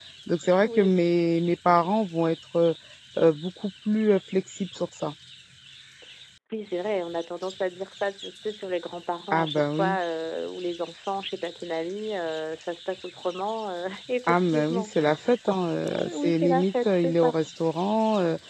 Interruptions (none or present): present